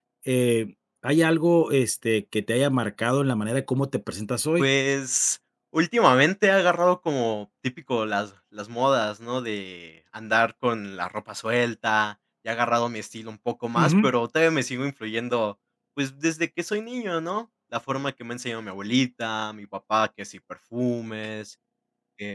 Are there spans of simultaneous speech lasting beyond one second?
No

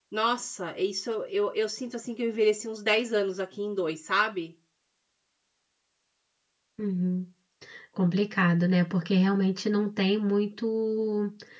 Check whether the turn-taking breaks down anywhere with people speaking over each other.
No

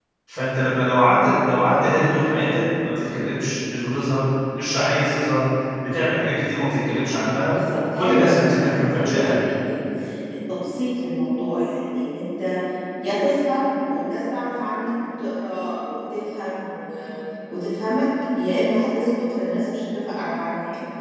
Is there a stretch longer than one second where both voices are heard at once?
Yes, from 8.0 s

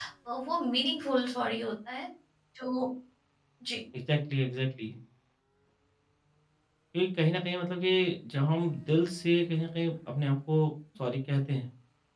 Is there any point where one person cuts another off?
No

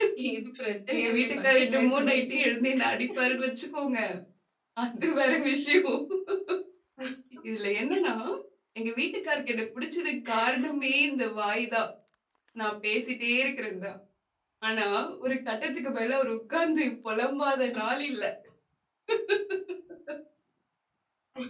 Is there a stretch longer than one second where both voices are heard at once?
Yes, from 0.9 s

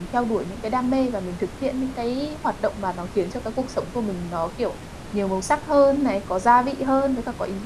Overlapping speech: No

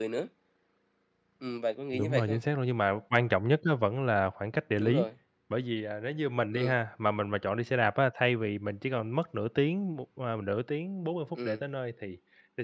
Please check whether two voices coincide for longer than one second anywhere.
No

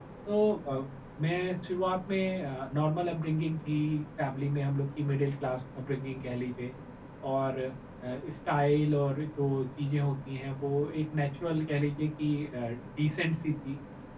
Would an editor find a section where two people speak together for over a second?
No

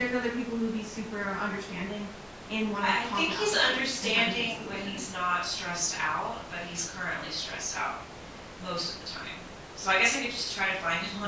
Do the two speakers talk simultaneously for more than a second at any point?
Yes, from 2.8 s

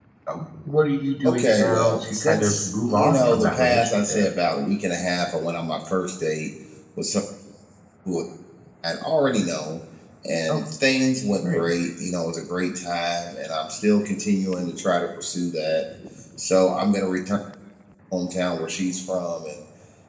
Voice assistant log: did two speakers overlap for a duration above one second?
Yes, from 1.2 s

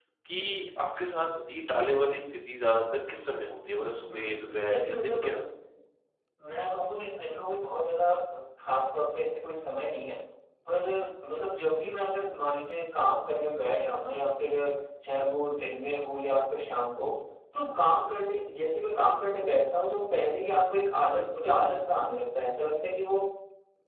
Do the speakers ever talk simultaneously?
Yes, from 4.1 s

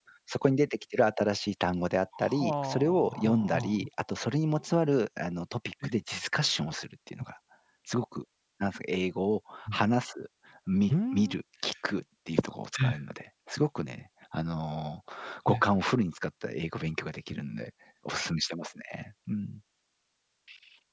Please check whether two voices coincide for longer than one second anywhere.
Yes, from 2.4 s

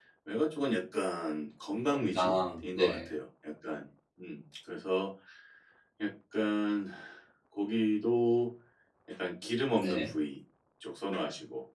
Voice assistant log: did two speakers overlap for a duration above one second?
No

